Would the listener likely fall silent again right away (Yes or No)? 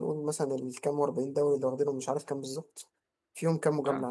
Yes